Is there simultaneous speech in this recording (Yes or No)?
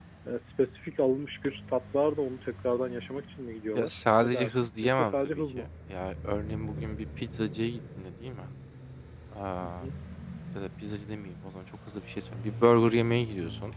Yes